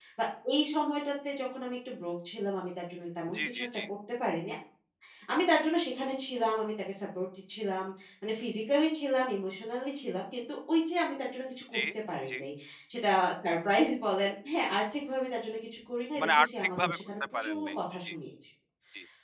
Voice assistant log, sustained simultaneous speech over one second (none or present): present